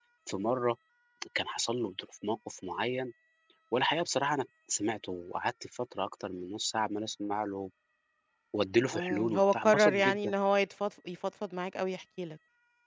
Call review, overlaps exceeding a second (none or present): present